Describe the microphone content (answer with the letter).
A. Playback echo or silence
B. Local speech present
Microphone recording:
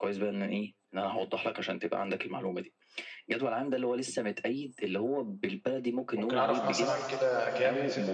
B